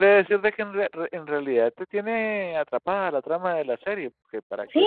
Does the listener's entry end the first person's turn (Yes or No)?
Yes